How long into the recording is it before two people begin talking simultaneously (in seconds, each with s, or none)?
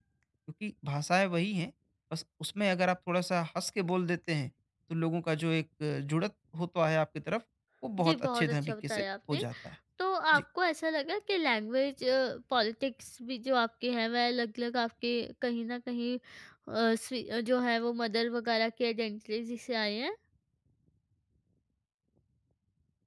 8.0 s